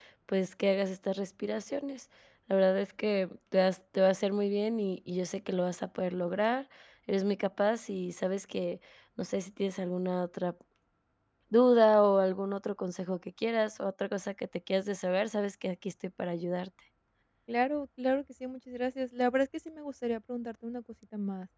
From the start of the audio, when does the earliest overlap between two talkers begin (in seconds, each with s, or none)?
none